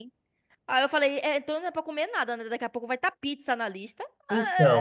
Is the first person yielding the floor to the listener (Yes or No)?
Yes